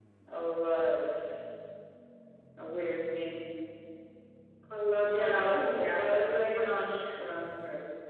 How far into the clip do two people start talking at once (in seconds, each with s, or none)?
5.0 s